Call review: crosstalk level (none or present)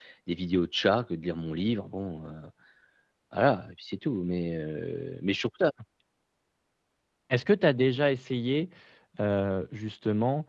none